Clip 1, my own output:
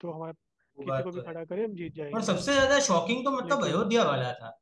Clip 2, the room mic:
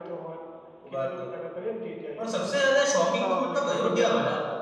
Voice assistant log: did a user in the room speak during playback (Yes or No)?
Yes